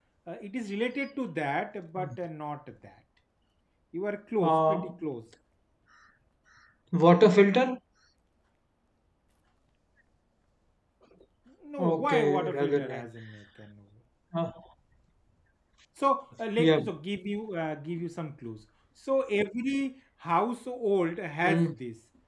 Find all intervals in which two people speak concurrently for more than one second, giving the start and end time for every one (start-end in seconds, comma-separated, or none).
11.8-13.0